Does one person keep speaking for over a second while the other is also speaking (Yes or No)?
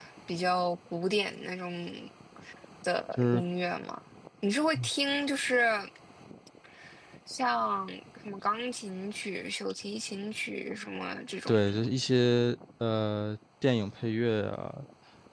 No